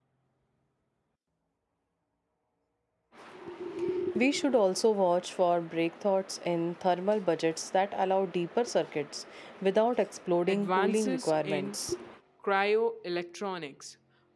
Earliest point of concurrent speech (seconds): 10.5 s

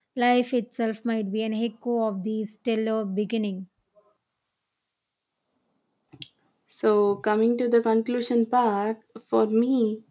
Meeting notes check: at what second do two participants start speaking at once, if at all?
none

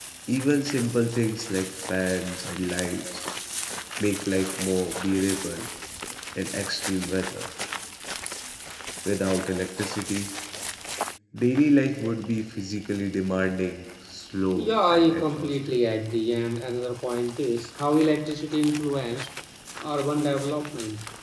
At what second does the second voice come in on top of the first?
14.6 s

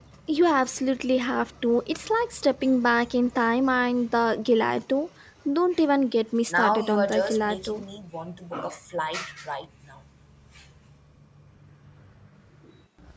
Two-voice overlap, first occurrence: 6.5 s

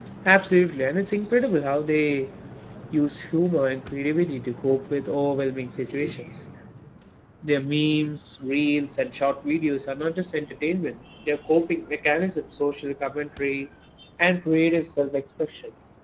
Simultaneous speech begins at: none

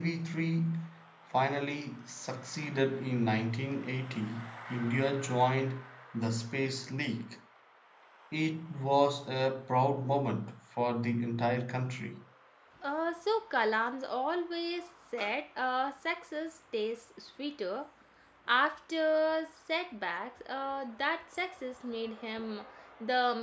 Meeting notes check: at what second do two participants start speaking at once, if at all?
none

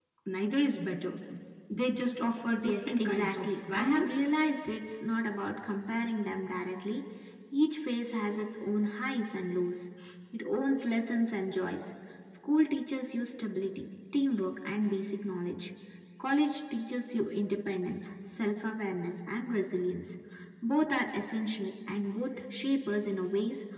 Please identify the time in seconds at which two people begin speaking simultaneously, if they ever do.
2.6 s

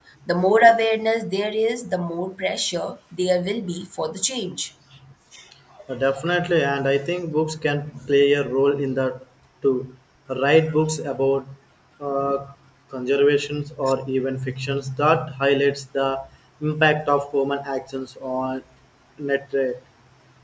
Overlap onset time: none

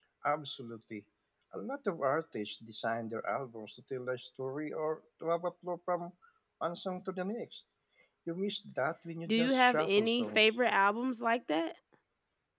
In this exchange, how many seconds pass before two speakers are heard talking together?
9.3 s

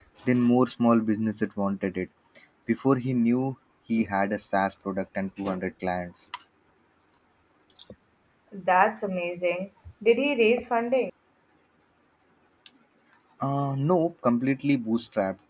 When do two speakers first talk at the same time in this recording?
none

